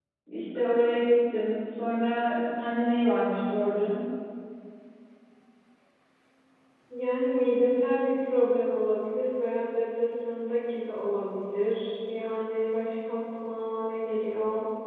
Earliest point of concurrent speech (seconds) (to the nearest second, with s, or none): none